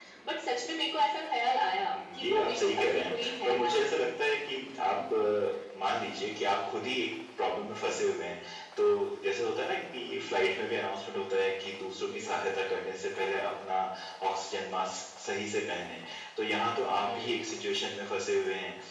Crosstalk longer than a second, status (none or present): present